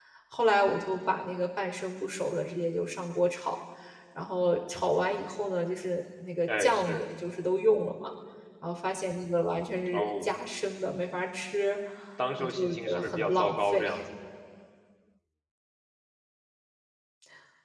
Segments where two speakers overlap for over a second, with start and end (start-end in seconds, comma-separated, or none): 12.4-13.8